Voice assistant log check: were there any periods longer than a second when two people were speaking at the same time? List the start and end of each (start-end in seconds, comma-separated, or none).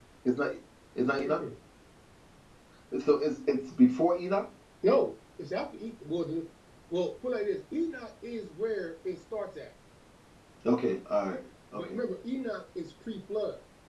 none